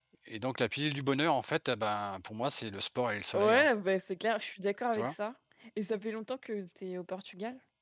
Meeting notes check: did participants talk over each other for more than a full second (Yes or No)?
No